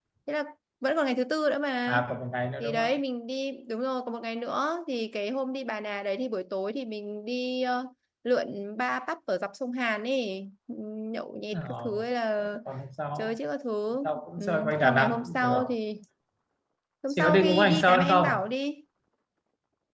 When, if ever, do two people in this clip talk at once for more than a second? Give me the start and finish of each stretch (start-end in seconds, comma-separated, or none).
14.0-15.7, 17.1-18.4